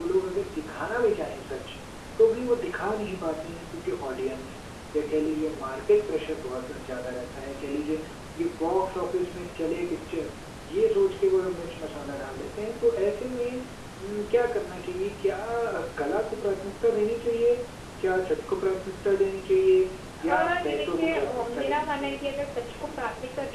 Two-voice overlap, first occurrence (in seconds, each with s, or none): 20.2 s